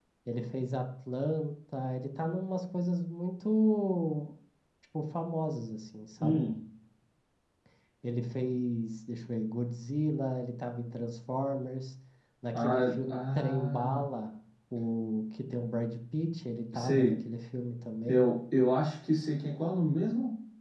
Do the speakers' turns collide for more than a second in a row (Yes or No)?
Yes